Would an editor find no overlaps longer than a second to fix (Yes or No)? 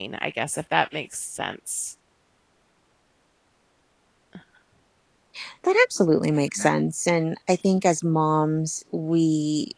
Yes